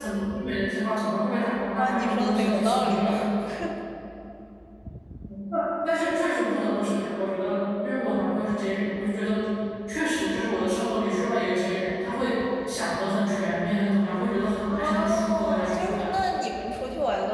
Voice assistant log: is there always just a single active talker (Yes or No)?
No